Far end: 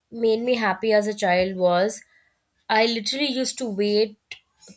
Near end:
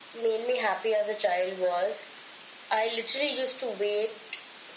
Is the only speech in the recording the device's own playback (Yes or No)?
Yes